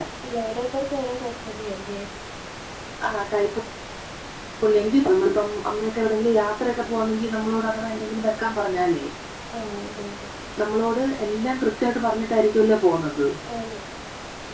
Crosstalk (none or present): none